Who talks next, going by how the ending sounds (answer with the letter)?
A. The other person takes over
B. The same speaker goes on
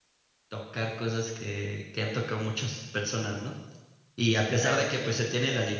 B